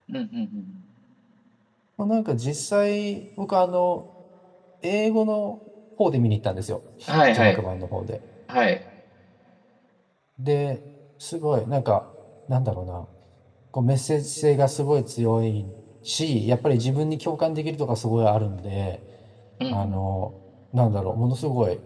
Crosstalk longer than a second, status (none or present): none